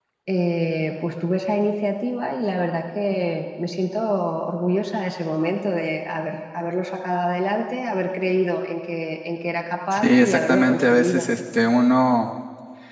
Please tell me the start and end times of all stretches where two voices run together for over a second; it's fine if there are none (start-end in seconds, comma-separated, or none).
9.9-11.3